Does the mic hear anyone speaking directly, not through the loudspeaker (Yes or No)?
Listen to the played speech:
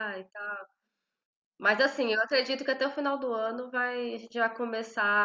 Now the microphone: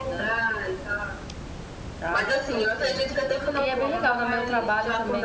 Yes